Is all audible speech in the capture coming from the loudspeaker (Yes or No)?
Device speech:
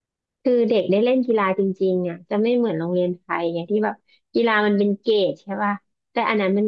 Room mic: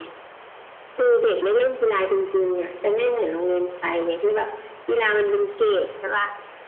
Yes